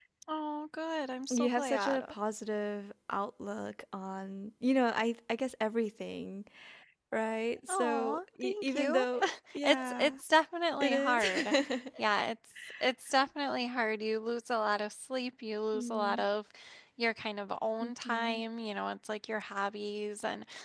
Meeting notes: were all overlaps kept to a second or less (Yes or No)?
No